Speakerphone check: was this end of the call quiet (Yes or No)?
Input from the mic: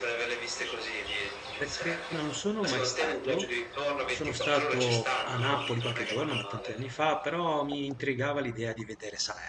No